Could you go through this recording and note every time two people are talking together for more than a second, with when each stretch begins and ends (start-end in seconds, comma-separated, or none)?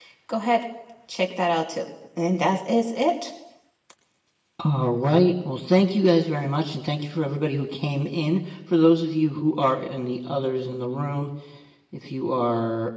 none